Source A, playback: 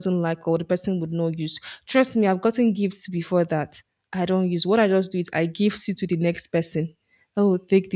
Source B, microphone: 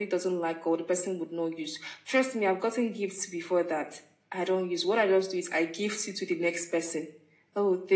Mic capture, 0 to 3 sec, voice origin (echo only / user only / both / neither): echo only